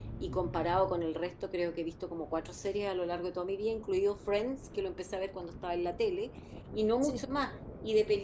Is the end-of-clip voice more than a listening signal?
No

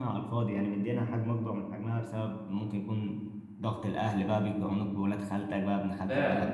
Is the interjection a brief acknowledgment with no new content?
No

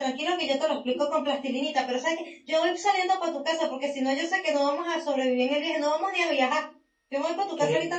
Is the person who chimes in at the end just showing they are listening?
Yes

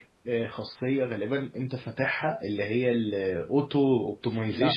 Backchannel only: Yes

